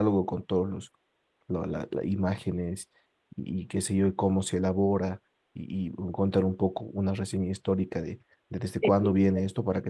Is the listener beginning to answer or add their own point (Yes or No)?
No